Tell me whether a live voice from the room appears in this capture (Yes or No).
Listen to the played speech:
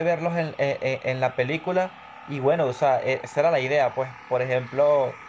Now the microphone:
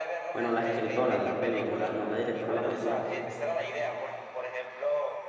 Yes